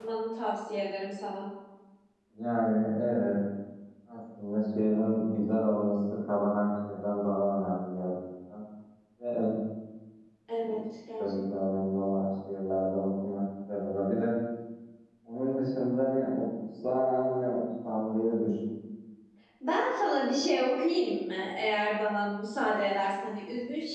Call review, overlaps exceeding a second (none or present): none